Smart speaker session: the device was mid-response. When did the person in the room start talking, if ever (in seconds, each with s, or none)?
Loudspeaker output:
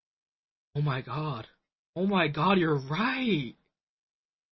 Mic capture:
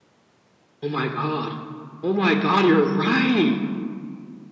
none